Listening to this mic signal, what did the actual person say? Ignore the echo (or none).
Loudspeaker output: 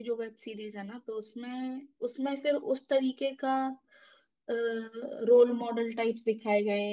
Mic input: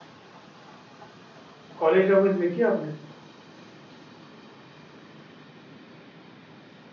कॉलेज रोमेंस देखी आपने